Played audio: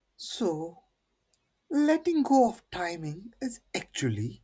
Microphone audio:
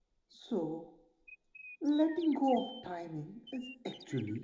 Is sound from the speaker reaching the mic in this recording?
Yes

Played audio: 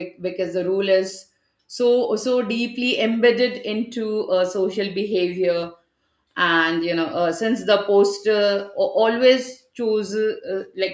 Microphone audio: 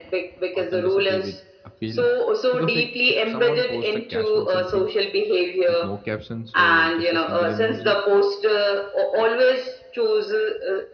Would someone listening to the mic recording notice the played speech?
Yes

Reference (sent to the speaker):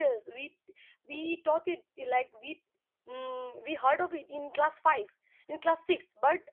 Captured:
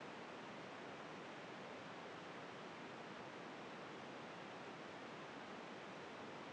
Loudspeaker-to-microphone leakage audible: No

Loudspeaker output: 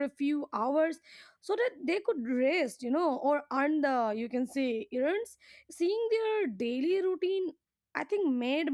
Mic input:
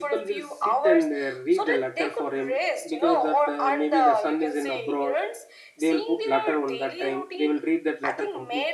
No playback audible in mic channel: No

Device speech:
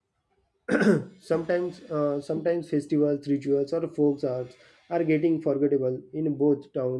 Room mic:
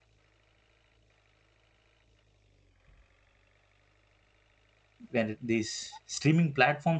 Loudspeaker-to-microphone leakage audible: No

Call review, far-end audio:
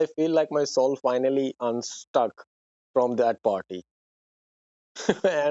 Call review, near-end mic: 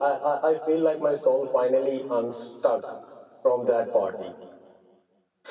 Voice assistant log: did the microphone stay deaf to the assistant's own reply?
No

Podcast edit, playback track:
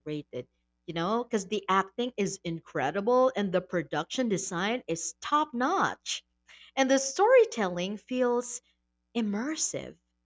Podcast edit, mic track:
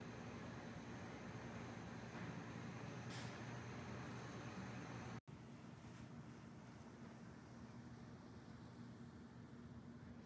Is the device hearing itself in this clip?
No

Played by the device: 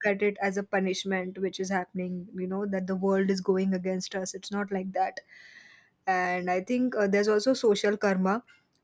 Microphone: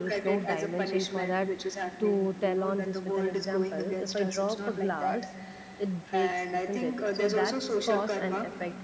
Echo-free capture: No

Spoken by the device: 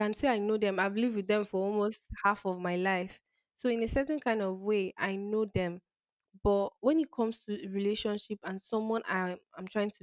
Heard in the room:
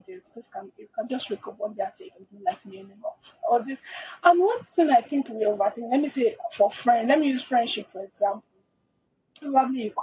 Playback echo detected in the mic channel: No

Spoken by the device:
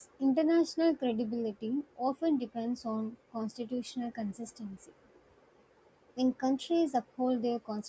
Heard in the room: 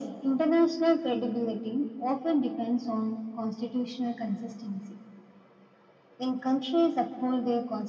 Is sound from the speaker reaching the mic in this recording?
Yes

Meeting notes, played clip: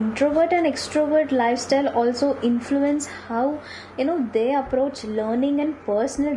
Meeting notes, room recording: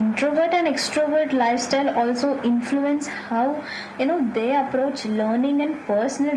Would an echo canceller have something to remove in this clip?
Yes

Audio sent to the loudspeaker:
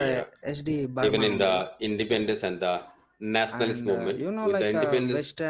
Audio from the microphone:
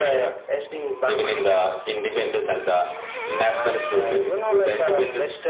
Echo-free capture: No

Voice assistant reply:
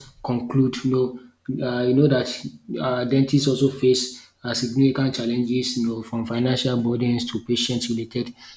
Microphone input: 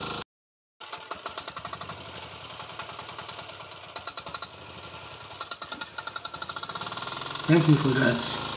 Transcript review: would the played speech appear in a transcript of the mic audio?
No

